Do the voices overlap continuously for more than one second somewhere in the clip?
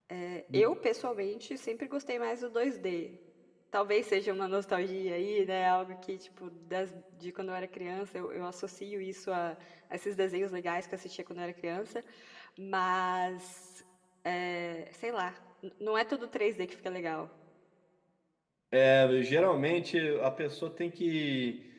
No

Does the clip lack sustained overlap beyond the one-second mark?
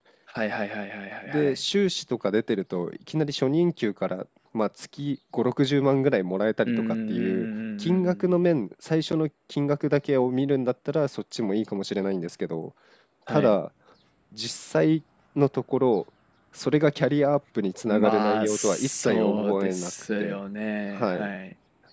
No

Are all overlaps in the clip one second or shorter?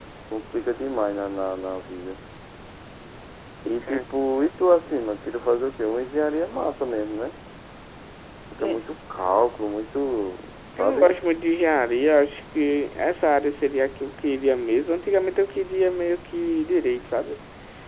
Yes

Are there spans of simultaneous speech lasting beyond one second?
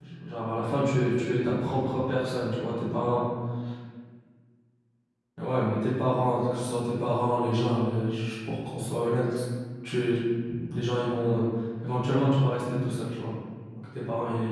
Yes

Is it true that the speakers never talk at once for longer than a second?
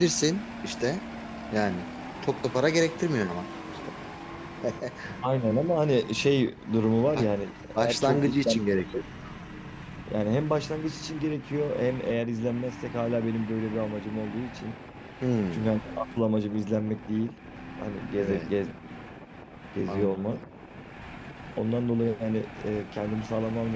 No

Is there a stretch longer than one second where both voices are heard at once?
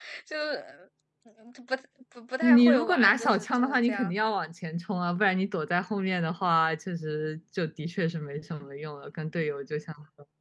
Yes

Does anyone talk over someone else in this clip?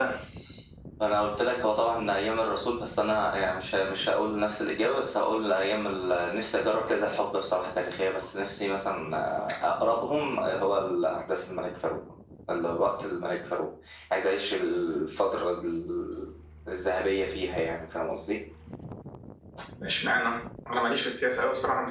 No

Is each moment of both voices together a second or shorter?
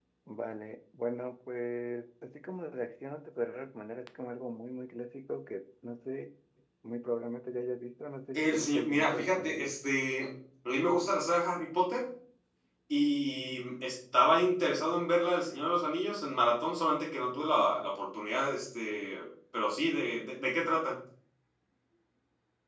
No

